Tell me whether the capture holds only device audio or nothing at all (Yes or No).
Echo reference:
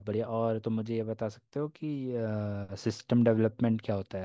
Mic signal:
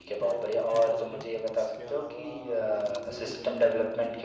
No